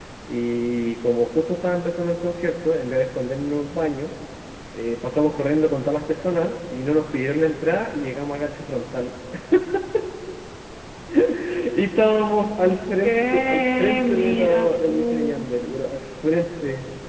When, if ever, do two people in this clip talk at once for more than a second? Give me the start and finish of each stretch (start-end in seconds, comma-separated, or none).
13.0-15.5